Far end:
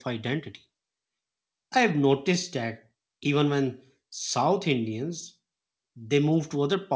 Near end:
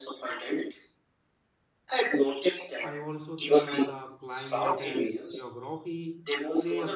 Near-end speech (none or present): present